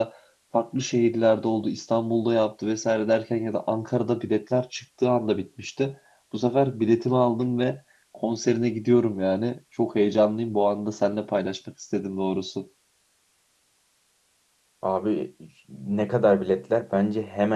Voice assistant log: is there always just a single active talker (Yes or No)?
Yes